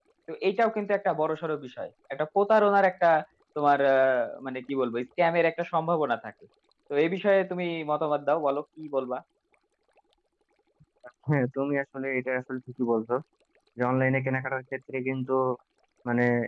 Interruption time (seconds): none

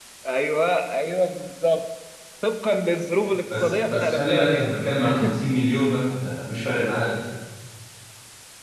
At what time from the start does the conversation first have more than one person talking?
3.5 s

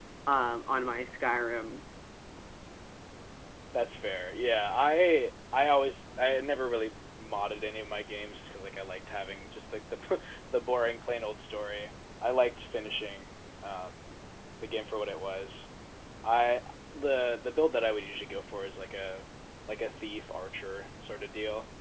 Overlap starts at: none

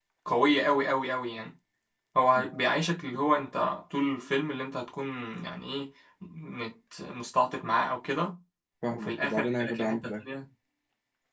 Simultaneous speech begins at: 8.9 s

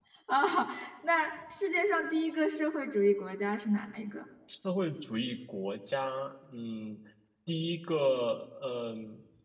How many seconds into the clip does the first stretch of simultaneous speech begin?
none

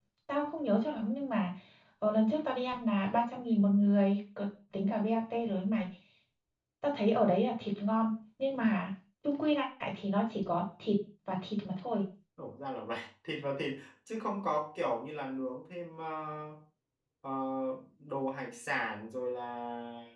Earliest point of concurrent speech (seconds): none

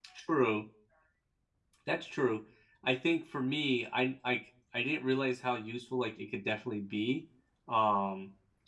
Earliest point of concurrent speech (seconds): none

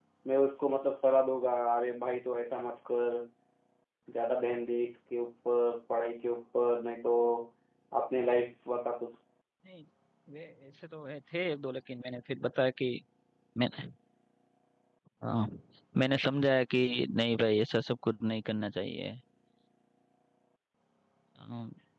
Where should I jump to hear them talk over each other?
none

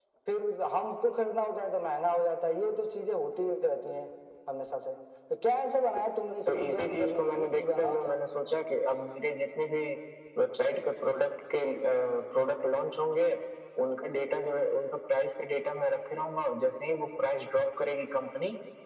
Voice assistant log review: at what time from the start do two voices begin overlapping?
6.5 s

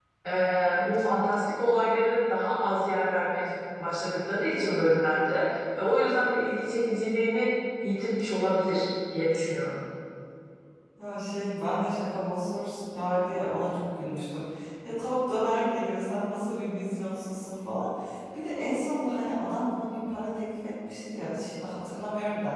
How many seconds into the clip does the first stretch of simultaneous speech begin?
none

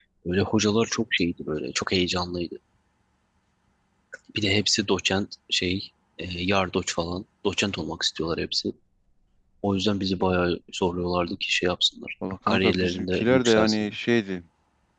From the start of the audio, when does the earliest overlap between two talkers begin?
12.5 s

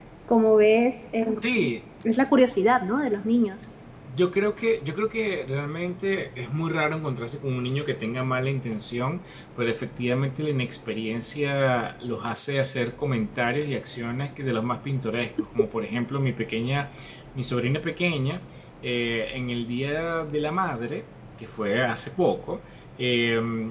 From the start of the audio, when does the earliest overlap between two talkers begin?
none

